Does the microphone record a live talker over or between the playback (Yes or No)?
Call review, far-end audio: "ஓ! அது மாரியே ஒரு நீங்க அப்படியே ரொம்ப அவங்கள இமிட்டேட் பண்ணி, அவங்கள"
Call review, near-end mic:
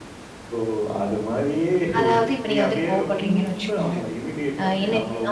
Yes